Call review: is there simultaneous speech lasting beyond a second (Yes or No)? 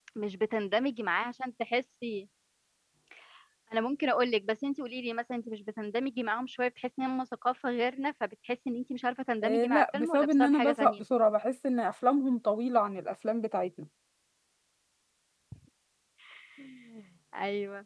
Yes